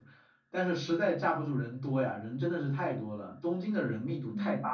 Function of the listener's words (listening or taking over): taking over